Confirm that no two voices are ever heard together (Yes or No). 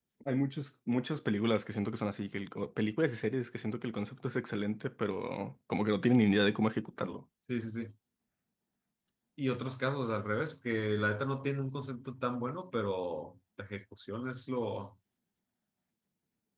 Yes